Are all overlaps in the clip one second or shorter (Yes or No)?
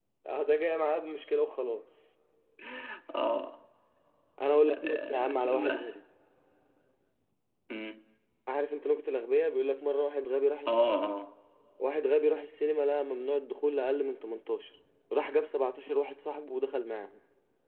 No